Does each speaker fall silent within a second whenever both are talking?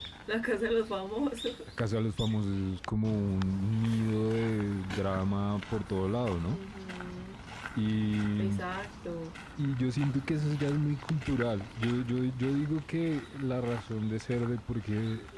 Yes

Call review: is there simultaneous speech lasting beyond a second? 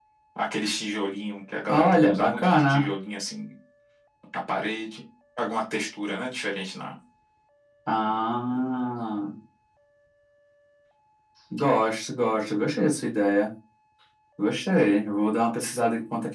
Yes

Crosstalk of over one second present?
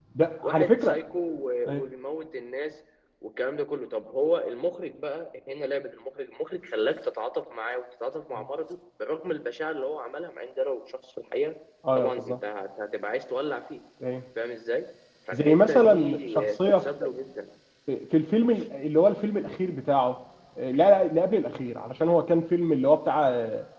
Yes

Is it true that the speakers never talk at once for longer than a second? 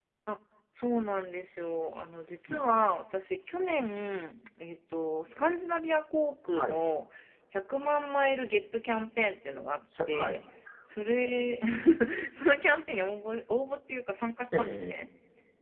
Yes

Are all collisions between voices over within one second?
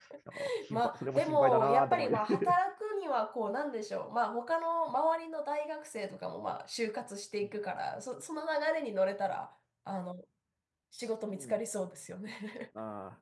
No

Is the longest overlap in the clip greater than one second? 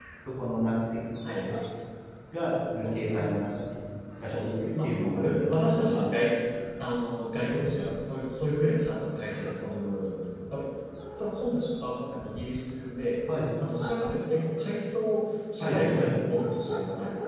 Yes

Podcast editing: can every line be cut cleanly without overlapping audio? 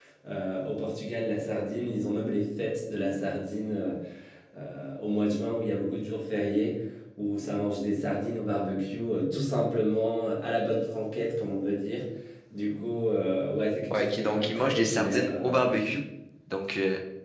No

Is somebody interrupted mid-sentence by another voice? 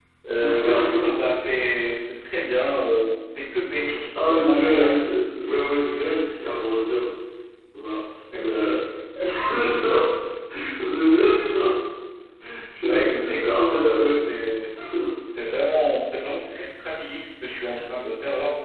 Yes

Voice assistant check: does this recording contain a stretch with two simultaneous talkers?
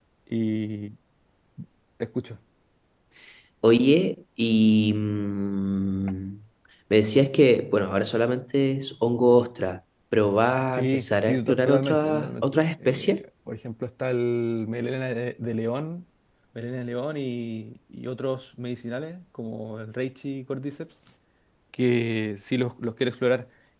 Yes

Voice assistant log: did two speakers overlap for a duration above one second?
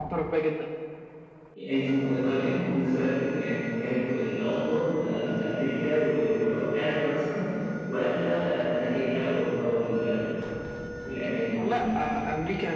No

